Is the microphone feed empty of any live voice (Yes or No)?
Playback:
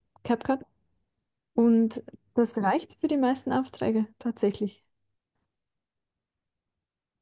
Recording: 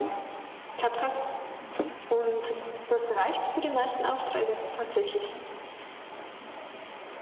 Yes